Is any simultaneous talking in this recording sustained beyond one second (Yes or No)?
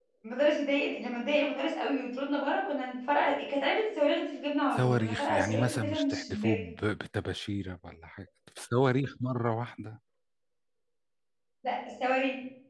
Yes